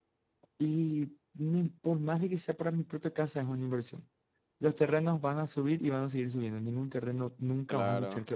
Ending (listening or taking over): taking over